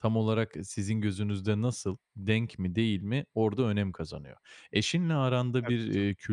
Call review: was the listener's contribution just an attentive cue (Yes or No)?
Yes